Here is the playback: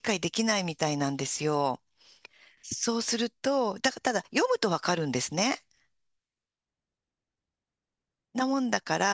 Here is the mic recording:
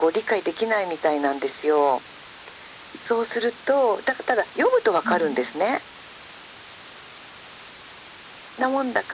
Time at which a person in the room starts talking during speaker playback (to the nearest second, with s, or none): 5 s